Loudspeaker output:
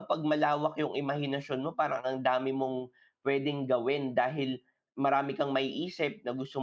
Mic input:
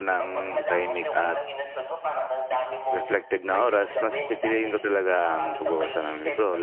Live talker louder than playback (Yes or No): Yes